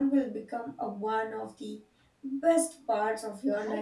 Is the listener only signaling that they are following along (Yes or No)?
No